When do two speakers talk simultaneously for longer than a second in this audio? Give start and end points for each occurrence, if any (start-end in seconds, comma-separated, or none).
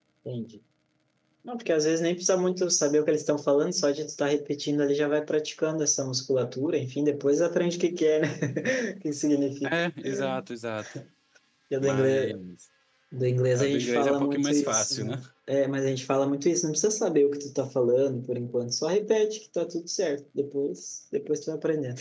13.5-15.2